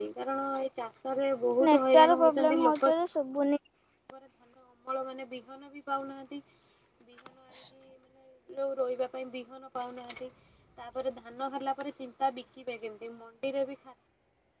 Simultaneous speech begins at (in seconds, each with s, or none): 1.6 s